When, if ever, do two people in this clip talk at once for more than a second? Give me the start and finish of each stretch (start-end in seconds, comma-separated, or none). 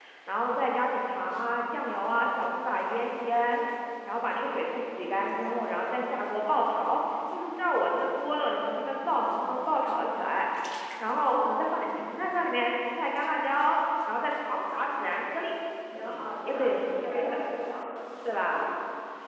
15.9-17.4